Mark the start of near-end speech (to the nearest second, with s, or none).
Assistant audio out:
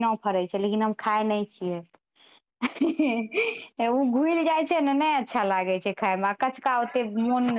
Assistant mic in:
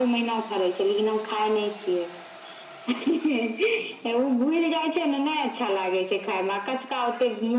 none